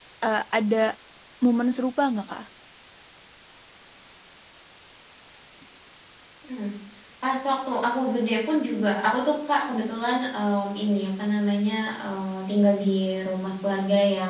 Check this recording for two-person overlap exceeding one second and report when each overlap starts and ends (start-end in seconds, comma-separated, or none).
none